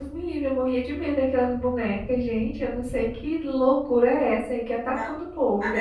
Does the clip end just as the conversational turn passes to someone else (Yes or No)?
Yes